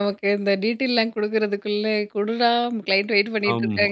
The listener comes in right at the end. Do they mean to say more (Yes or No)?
Yes